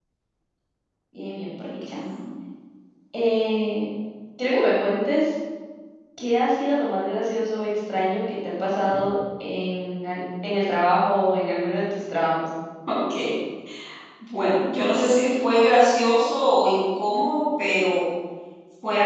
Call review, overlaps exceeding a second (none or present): none